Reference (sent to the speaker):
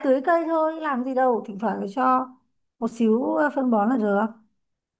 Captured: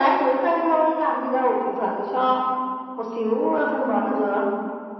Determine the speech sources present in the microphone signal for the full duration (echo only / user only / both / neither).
echo only